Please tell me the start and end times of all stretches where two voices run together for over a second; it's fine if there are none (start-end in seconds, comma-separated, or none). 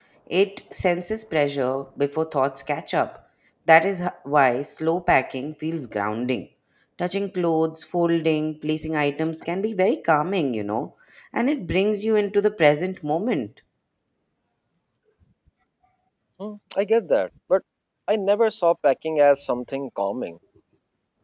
none